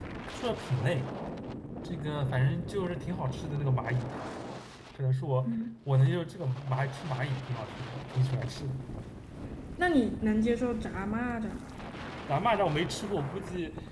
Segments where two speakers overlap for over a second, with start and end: none

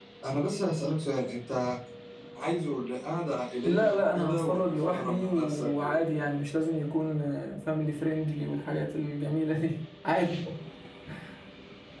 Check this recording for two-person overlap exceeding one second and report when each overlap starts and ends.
3.6-6.1

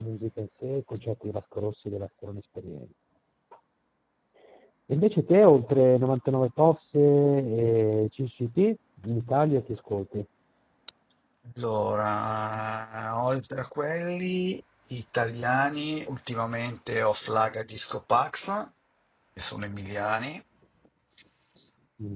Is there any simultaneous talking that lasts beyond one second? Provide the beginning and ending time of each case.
none

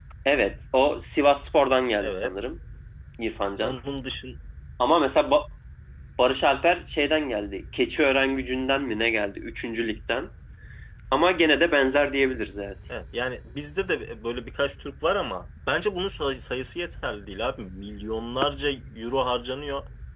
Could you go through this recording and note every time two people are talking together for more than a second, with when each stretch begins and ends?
none

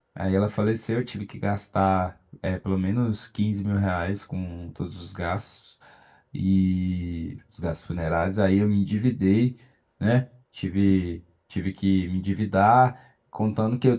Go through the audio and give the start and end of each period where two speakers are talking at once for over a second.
none

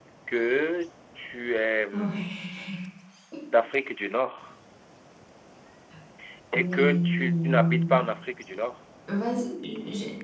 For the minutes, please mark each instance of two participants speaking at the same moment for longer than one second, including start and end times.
6.5-8.0

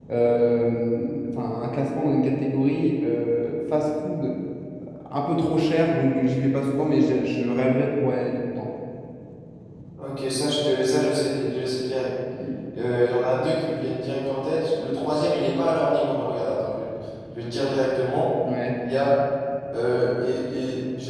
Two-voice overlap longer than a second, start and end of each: none

